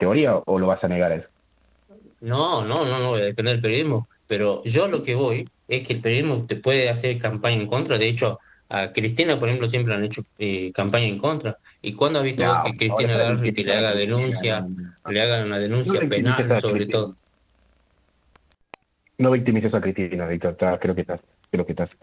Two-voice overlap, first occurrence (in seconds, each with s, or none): 12.4 s